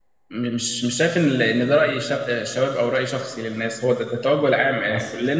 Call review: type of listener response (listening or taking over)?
taking over